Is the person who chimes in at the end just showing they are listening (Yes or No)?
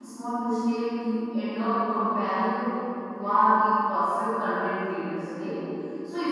Yes